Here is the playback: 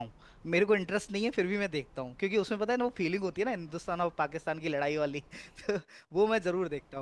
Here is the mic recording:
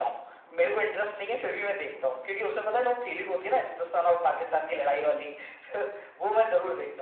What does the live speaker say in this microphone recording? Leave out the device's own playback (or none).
none